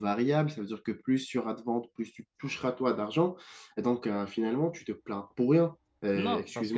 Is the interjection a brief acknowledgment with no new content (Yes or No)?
No